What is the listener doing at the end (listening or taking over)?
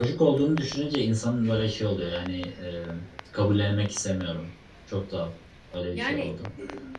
listening